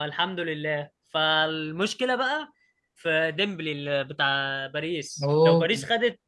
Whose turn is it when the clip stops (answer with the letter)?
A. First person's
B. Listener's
A